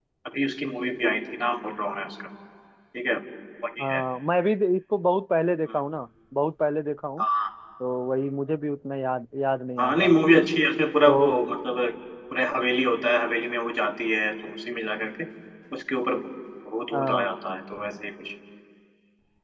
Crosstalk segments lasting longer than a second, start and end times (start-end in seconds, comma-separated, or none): none